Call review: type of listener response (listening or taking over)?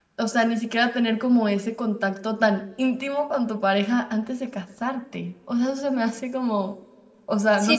taking over